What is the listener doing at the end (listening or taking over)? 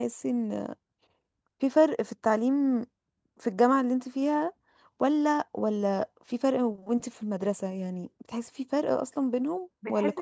taking over